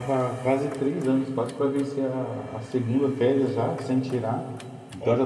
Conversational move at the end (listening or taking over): listening